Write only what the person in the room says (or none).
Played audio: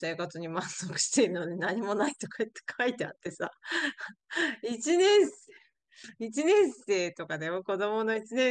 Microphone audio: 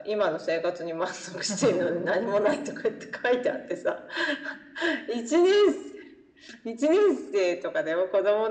なんかそう、